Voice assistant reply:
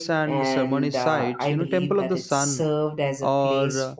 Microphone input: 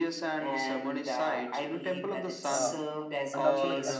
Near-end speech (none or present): present